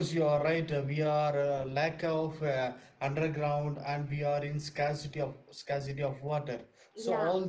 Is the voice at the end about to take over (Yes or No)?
No